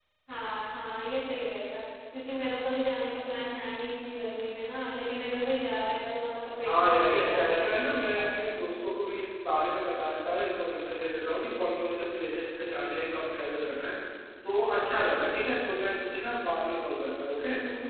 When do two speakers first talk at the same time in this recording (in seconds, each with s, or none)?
6.6 s